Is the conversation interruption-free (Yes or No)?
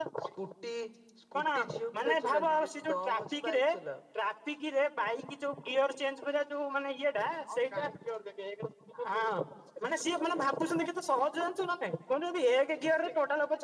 No